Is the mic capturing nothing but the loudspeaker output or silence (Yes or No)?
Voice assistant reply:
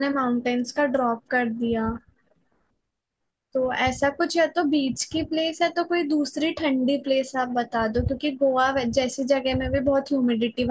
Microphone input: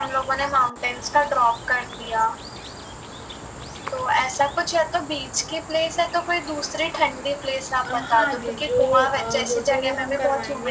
No